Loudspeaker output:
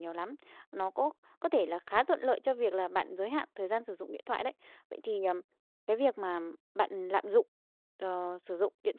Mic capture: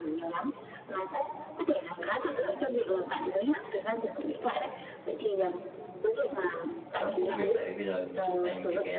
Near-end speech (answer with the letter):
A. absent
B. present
B